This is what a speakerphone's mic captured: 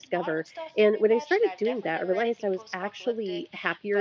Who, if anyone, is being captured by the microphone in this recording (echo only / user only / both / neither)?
both